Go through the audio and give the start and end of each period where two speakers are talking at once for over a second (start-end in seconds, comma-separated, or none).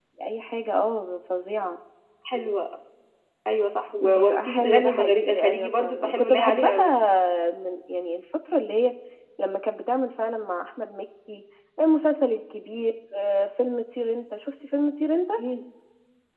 4.0-7.0